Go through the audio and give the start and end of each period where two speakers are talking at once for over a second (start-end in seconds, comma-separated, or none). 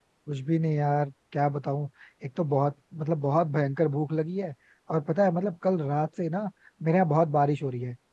none